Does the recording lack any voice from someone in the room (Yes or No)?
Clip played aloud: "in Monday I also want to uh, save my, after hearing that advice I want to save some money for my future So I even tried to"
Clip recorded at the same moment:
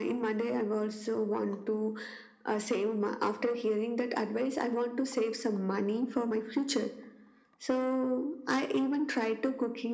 Yes